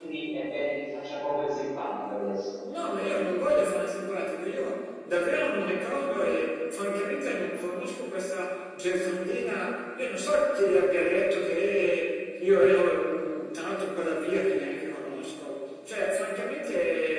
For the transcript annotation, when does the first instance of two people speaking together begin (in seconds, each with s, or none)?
none